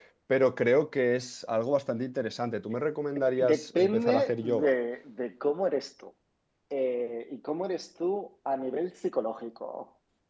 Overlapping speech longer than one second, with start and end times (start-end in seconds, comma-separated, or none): 3.4-4.7